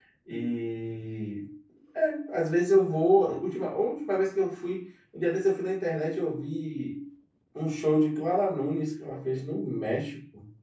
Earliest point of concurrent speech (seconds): none

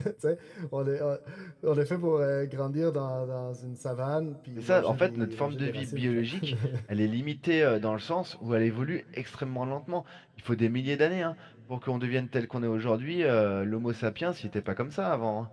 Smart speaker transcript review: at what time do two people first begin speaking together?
4.6 s

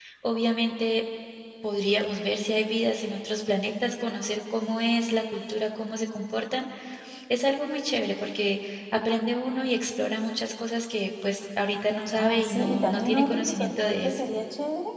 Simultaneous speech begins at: 12.2 s

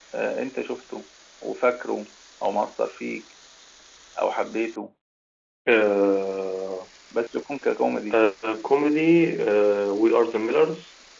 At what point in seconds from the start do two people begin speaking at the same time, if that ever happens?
none

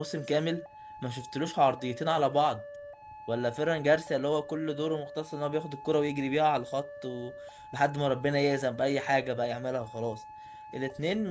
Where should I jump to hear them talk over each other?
none

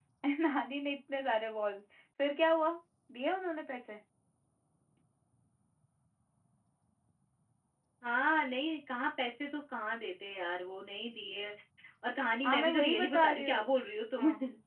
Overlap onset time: 12.4 s

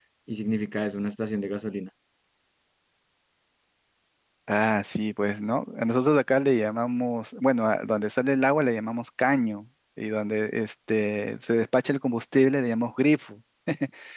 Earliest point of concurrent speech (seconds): none

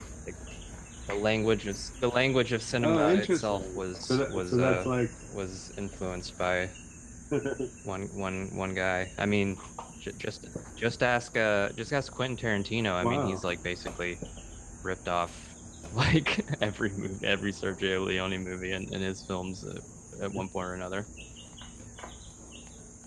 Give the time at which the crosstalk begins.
2.8 s

